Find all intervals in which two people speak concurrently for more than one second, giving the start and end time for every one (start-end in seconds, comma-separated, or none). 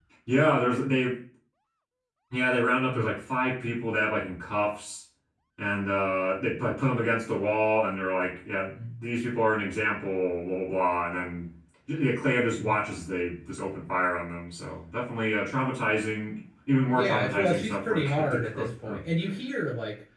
16.9-19.0